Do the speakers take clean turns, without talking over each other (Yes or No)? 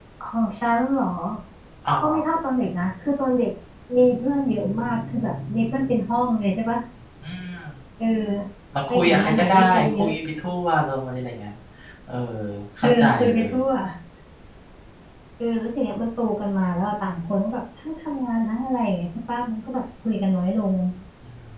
No